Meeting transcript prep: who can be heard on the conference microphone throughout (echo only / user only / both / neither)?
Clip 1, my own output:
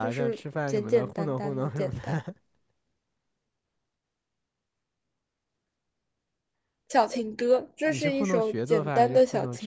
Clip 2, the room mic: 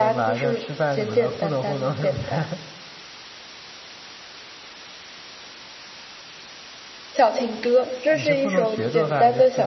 echo only